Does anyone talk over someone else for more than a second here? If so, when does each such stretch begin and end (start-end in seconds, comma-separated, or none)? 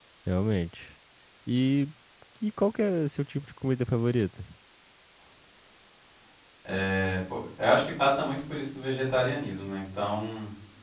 none